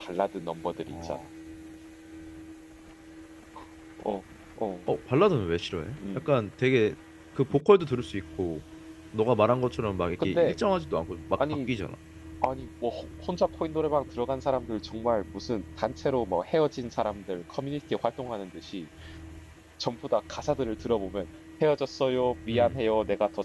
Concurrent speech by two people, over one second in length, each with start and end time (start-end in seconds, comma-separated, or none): none